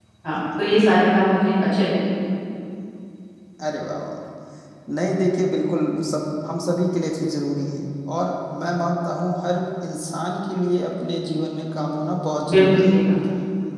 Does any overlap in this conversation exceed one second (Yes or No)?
No